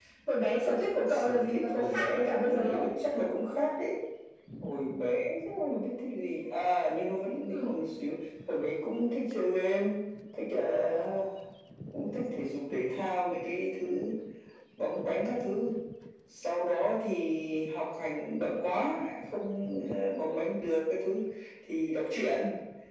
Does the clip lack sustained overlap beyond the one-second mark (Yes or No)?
No